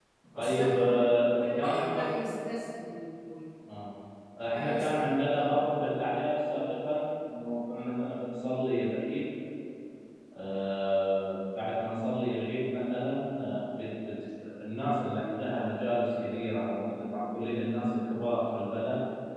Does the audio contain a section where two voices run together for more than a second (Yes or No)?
Yes